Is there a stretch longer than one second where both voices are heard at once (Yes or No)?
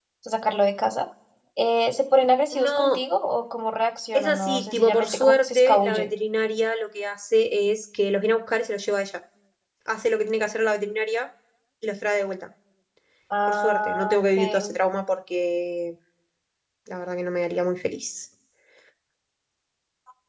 Yes